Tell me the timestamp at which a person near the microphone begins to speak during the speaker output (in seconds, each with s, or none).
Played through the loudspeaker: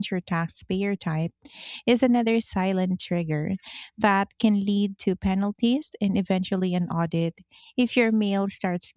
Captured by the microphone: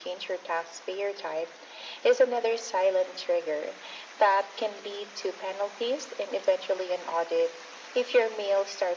none